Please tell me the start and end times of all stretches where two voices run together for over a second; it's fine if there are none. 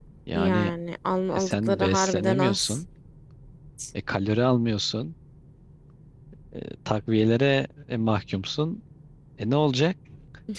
1.4-2.8

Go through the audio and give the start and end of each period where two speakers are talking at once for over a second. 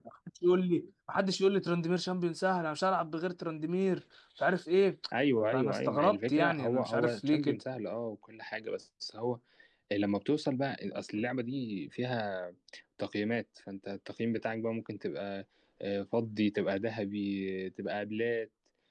5.5-7.6

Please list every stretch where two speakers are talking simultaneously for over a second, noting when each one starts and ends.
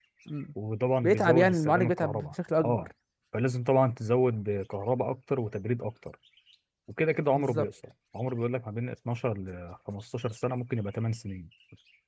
1.0-2.9

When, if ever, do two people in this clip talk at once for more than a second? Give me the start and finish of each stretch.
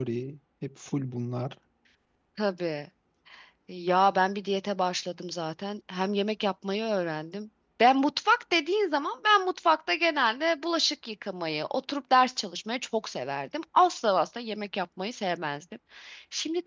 none

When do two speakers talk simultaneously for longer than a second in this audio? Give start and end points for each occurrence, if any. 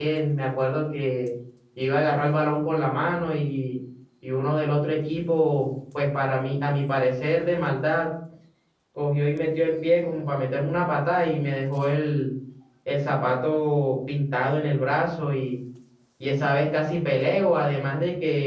none

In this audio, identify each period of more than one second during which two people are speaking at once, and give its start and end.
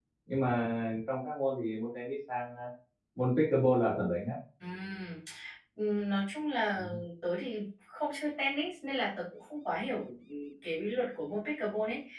none

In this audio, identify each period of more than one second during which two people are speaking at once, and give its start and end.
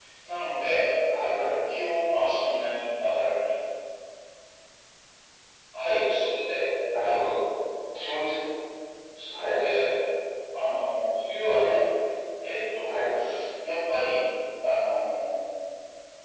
none

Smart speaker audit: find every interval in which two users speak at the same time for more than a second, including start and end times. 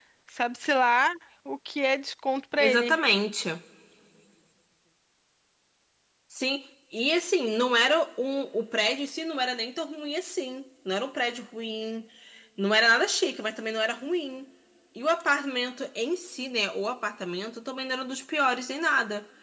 none

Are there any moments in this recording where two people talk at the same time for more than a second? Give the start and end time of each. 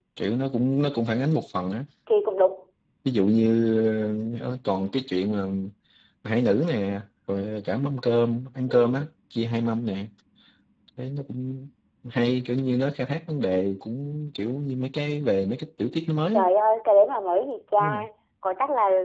none

